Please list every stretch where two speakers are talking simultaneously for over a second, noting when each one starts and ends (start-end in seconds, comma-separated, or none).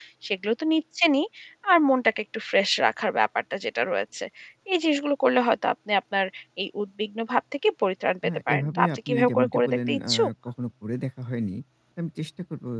8.2-10.3